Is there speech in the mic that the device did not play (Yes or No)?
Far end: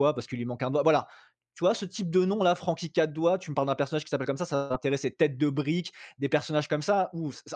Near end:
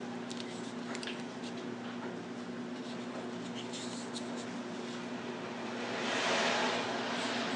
No